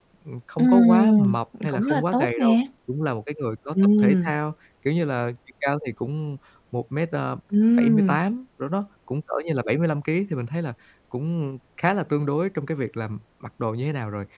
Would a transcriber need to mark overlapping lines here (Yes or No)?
Yes